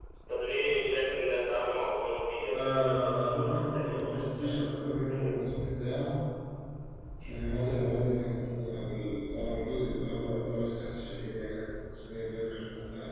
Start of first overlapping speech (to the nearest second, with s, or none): 3 s